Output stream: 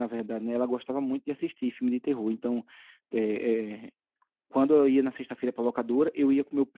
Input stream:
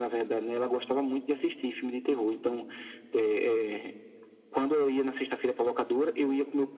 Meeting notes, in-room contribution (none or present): none